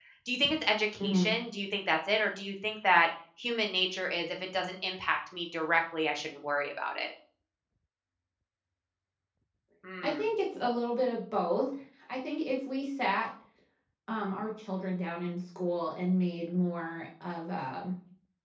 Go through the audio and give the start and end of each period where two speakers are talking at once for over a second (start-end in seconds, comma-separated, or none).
none